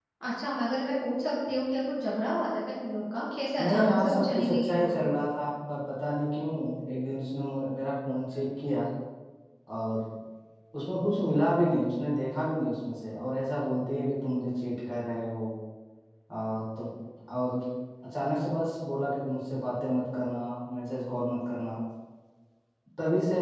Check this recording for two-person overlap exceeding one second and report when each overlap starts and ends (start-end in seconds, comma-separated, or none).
3.6-5.1